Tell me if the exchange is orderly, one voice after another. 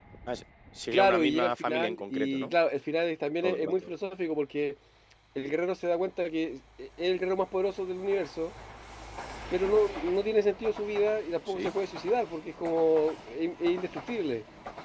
No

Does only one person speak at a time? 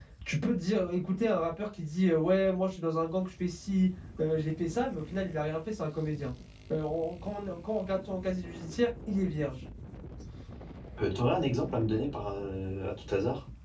Yes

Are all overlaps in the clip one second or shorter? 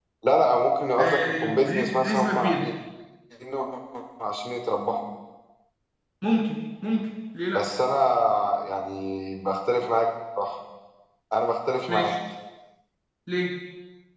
No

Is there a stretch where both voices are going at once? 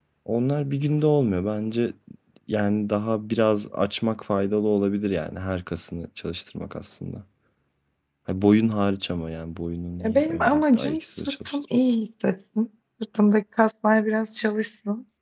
Yes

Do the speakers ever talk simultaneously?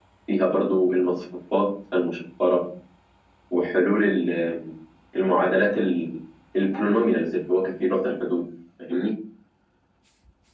No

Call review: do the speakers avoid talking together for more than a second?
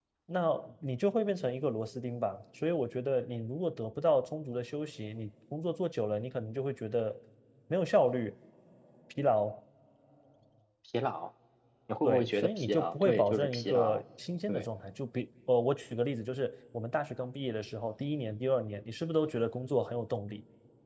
No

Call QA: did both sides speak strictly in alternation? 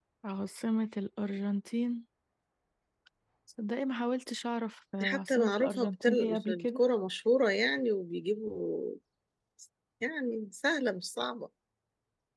No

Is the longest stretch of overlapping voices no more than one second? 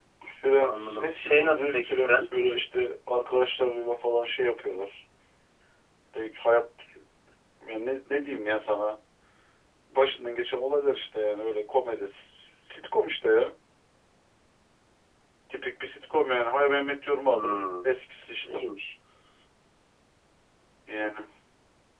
No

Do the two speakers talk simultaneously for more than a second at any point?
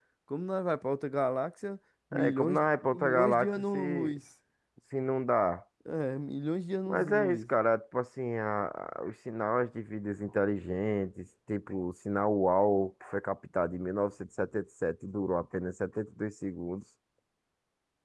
Yes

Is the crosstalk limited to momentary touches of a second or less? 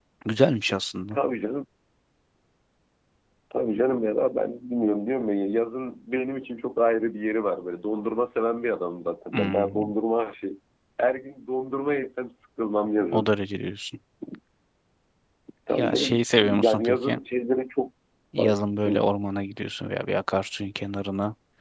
No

